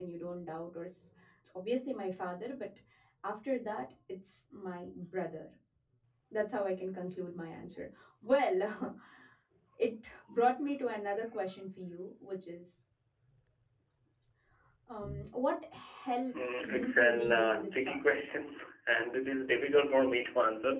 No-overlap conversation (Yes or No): No